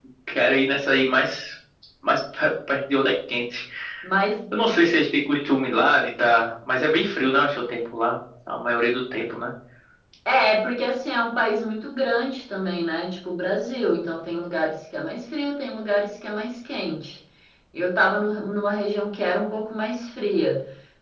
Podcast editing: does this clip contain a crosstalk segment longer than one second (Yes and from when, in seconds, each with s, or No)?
No